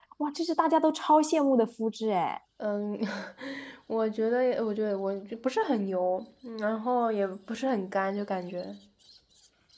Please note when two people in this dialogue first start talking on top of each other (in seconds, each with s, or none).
none